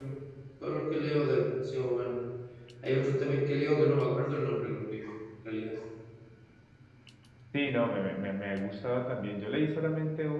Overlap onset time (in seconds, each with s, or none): none